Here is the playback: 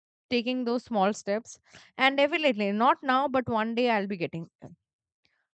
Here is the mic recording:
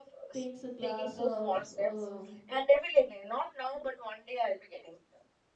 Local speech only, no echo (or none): takes a glass of uh,